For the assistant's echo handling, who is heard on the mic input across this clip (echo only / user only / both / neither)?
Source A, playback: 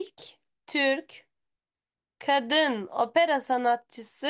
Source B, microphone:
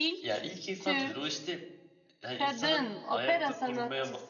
both